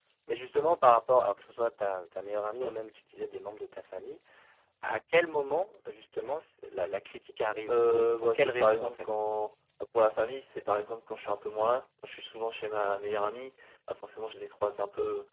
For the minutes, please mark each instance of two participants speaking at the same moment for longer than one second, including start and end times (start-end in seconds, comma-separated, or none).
7.7-9.1